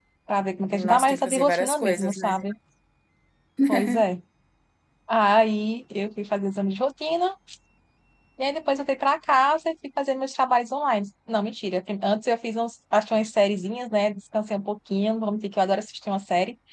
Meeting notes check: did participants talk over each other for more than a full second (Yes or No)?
Yes